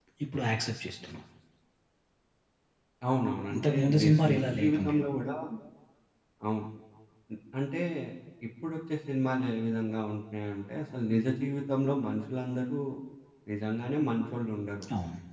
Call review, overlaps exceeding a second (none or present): present